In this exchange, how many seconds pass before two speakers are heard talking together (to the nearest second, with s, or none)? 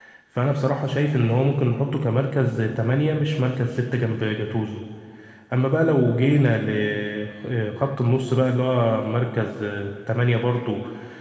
none